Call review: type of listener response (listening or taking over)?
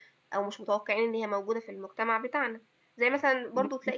listening